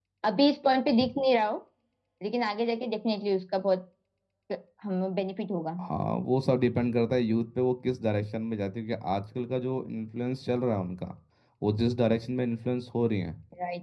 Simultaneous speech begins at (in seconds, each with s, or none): none